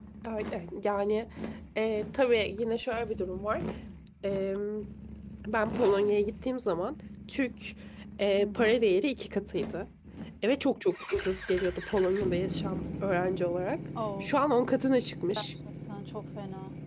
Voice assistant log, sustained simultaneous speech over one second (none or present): none